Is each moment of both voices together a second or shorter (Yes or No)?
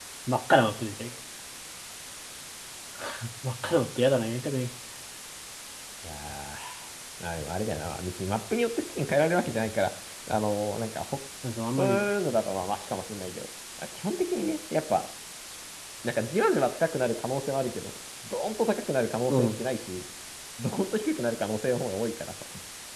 Yes